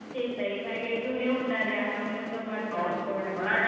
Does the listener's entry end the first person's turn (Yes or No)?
Yes